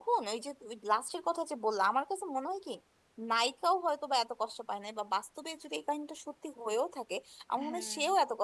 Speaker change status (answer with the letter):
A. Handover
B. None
B